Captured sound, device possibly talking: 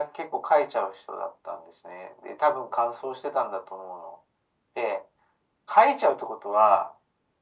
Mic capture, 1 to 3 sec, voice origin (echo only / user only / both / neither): echo only